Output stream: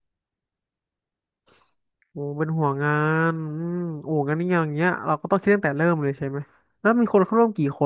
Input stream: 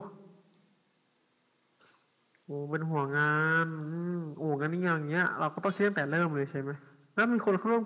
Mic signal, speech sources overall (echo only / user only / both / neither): echo only